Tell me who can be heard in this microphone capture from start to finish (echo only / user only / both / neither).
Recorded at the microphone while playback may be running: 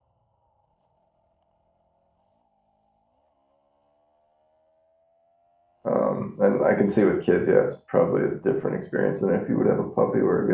user only